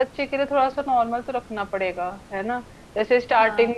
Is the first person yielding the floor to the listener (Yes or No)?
No